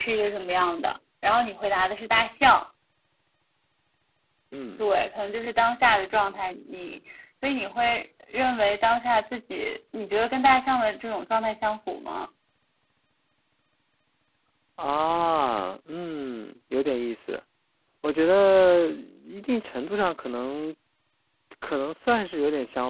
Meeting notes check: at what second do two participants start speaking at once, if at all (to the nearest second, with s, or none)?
none